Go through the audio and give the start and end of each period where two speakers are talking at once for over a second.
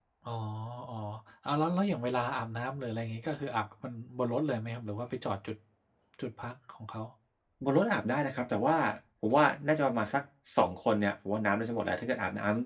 none

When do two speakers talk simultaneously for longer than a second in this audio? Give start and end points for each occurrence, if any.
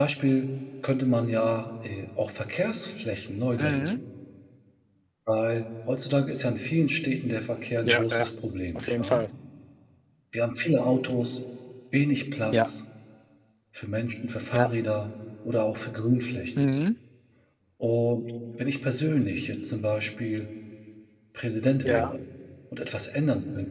none

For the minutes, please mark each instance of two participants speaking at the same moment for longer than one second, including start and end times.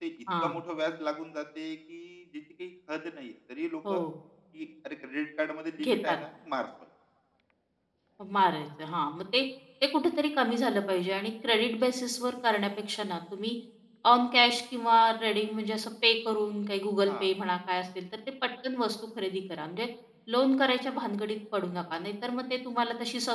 none

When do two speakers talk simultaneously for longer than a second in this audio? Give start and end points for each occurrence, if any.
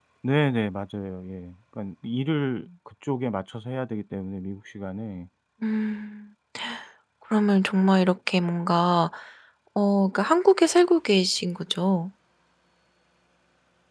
none

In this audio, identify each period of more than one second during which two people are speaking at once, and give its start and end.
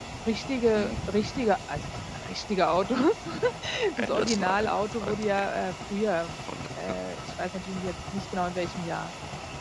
4.0-5.5

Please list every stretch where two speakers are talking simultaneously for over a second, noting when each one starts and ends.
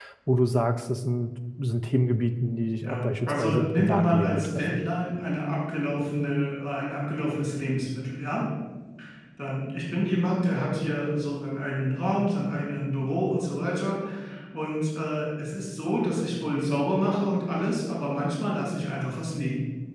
2.8-4.8

